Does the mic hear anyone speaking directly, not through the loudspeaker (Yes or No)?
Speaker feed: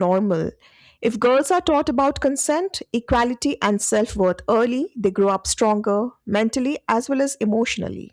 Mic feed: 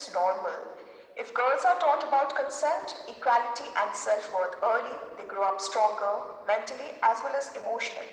No